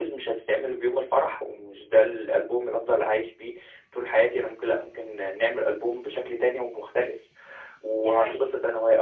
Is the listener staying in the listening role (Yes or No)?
Yes